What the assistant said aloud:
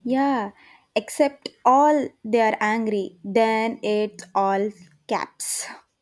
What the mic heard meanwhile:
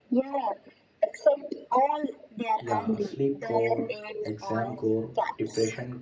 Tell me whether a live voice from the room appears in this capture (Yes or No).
Yes